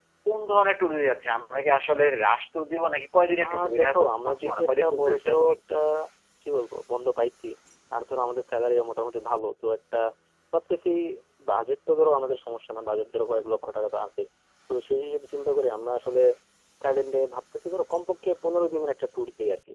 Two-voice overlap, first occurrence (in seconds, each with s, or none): 3.4 s